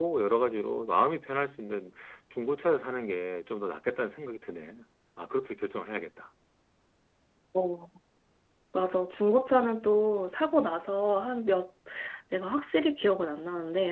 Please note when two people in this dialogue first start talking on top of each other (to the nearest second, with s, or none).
none